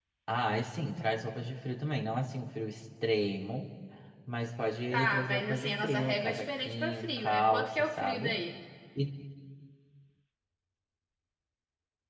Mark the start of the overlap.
4.9 s

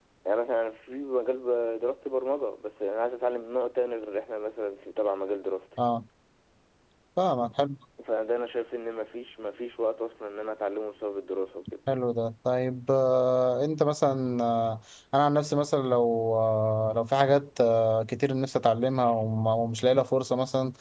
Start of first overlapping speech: none

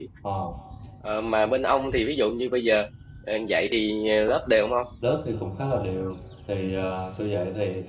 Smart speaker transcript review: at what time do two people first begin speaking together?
none

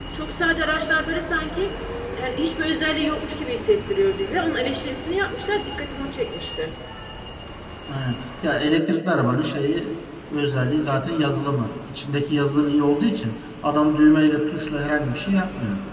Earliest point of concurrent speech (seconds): none

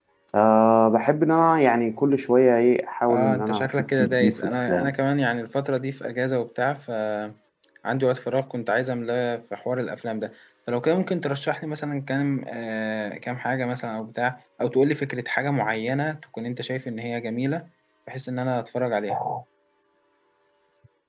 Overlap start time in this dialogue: 3.1 s

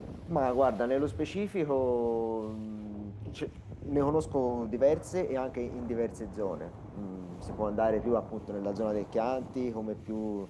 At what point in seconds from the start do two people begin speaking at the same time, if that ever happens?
none

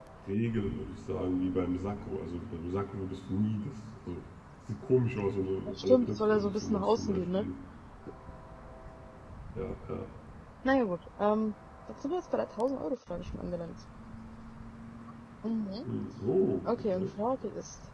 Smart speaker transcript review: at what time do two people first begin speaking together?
5.8 s

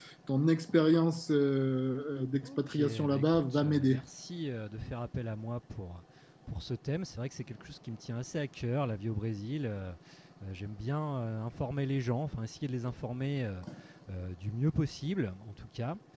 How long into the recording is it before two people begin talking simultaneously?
2.4 s

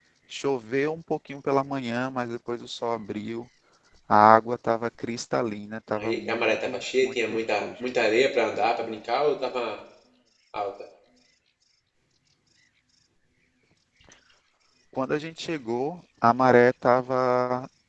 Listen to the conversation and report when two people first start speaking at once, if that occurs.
6.0 s

